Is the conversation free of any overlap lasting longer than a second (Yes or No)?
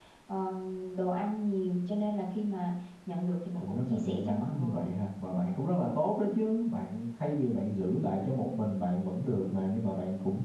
No